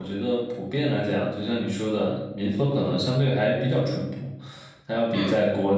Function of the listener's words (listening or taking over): listening